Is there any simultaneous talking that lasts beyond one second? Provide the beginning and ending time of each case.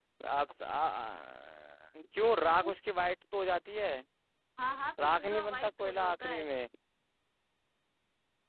5.0-6.4

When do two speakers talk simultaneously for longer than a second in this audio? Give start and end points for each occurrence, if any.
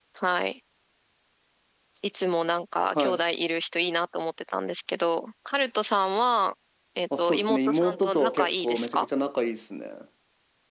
7.2-9.1

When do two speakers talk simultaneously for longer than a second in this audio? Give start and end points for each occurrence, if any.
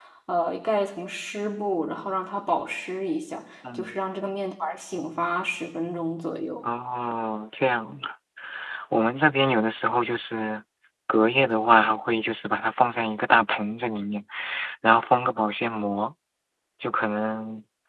none

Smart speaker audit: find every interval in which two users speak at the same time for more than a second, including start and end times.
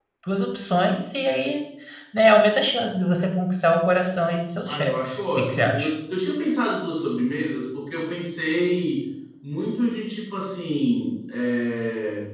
4.7-5.9

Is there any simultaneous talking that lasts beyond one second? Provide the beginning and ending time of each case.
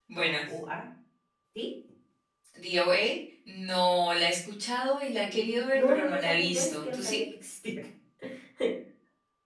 5.3-7.2

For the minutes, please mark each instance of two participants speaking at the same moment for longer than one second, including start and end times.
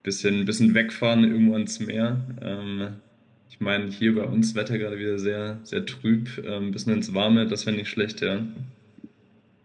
none

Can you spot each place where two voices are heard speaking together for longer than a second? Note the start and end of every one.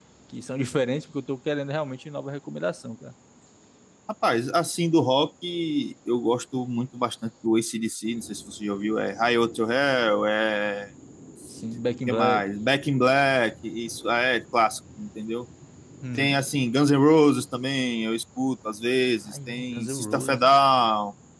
19.2-20.5

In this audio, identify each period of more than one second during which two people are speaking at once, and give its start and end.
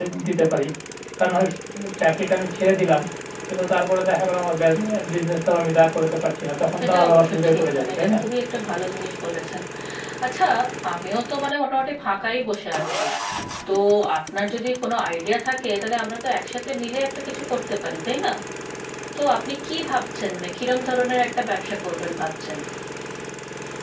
6.8-8.2

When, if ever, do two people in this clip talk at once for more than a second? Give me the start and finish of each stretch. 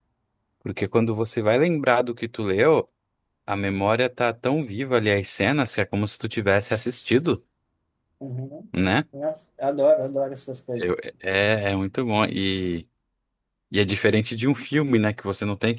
none

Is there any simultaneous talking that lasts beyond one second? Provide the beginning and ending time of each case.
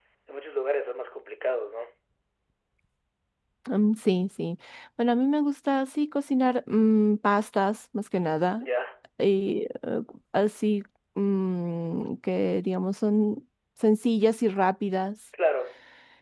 none

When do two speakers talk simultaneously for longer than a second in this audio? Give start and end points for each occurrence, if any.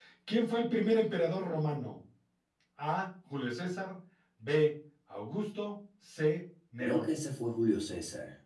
none

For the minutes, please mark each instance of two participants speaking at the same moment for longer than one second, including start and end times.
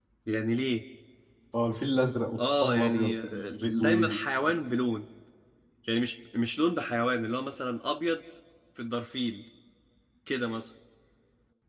2.4-4.2

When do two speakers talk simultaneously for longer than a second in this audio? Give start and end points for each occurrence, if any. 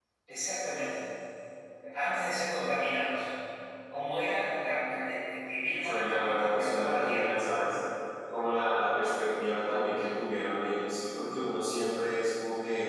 5.8-7.4

